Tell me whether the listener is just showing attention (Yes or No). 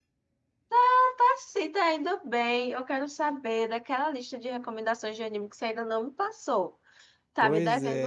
No